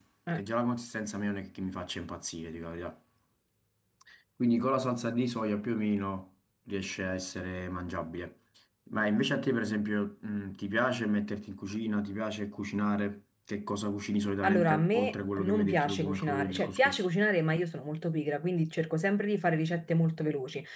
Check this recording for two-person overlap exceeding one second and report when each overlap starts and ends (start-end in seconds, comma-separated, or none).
14.4-17.1